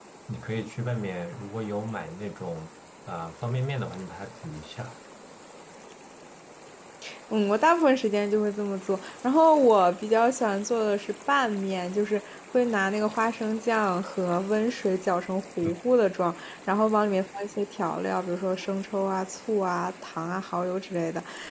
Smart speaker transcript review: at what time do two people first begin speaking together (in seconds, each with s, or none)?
none